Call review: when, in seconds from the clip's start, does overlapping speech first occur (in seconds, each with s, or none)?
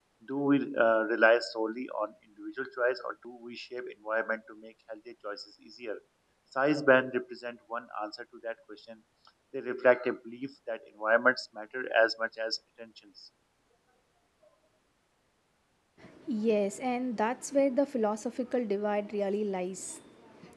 none